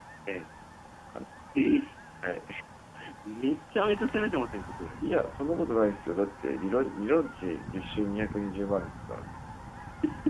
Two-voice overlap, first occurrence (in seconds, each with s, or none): none